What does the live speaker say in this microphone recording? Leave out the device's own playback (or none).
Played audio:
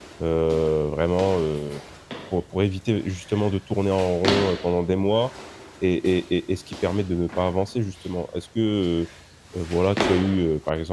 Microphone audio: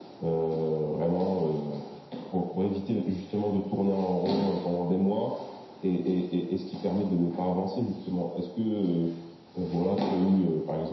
none